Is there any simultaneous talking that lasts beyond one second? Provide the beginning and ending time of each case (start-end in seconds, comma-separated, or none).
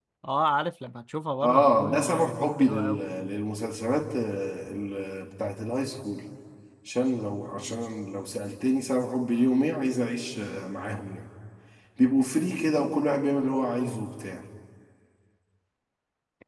1.4-3.0